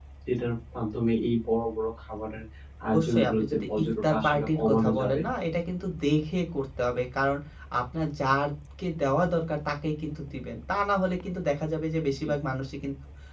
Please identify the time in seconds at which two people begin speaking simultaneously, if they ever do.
2.9 s

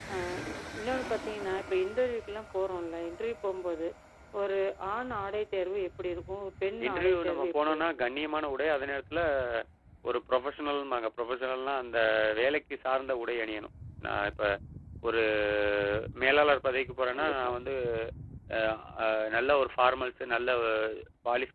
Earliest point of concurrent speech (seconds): 6.8 s

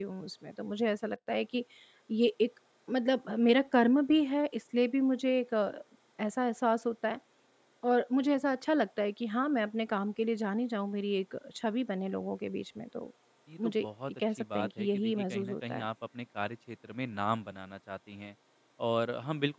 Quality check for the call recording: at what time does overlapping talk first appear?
13.6 s

